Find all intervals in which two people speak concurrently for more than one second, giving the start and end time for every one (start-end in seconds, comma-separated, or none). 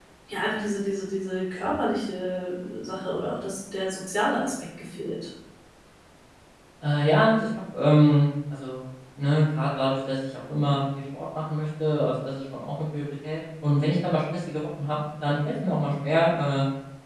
none